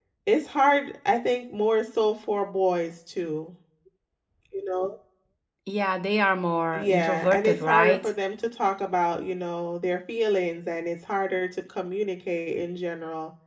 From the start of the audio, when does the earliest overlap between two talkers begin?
6.7 s

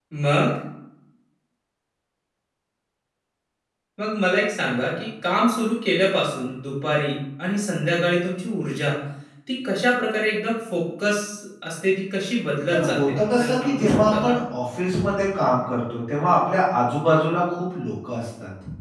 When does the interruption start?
12.7 s

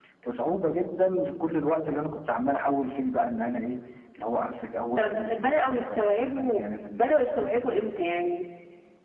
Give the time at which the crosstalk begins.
5.0 s

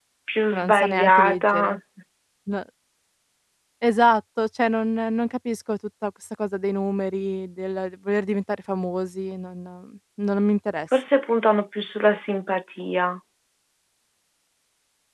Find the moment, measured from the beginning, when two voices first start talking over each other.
0.5 s

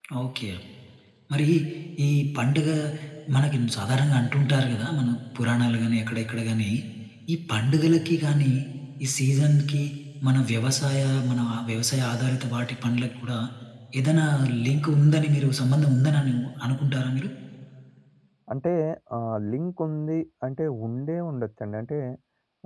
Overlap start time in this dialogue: none

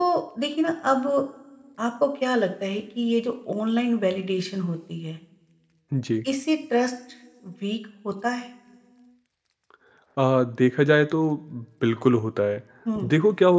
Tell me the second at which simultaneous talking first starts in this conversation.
none

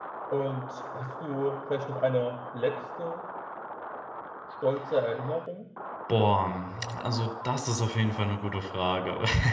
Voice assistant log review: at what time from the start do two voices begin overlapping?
none

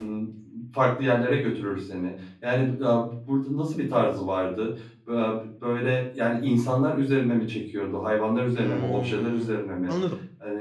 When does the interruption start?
8.6 s

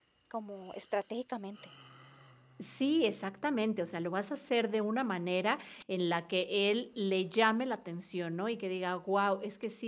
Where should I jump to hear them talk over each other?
none

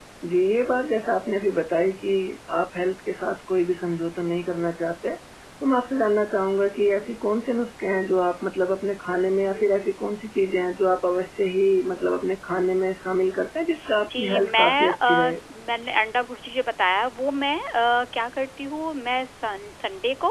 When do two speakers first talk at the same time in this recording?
14.0 s

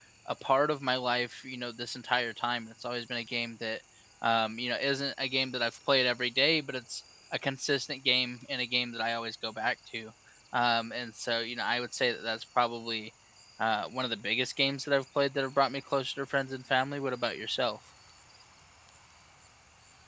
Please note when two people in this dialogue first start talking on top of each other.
none

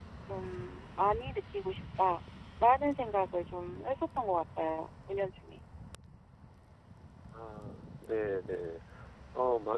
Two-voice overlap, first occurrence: none

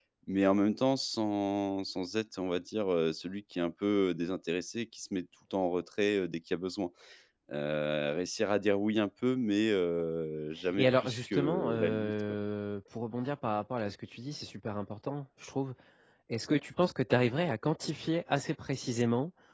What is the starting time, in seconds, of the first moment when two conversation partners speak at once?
10.7 s

